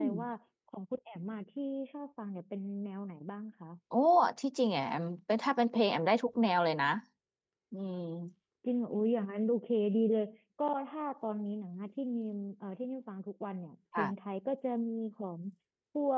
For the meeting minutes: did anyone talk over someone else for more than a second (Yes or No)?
No